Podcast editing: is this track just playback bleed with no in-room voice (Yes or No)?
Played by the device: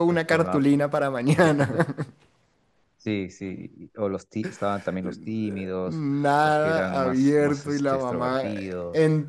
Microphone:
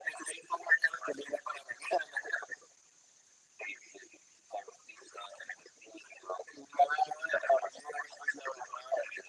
Yes